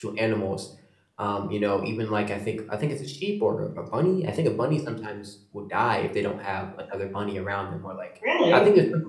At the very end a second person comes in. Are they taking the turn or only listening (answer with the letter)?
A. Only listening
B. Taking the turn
A